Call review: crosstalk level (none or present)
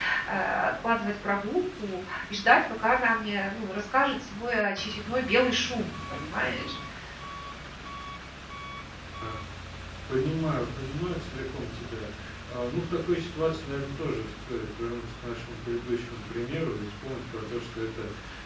none